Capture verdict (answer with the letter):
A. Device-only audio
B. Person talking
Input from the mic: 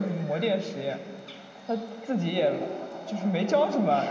A